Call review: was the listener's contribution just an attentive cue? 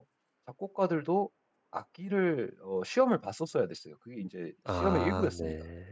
No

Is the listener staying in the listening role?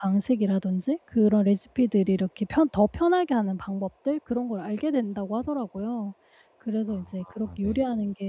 Yes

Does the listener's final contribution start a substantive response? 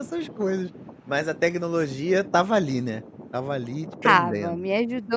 Yes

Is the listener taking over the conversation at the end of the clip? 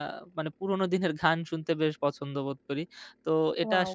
No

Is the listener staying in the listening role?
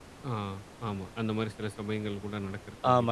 No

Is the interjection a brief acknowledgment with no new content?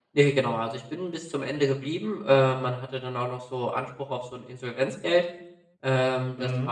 Yes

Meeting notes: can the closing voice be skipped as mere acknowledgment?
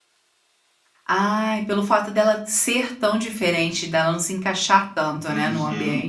No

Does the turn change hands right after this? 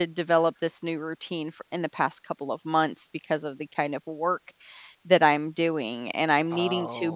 No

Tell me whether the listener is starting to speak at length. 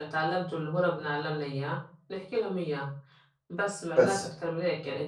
No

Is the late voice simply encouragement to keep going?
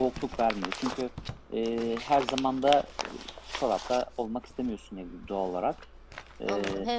No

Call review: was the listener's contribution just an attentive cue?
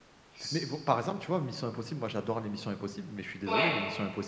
Yes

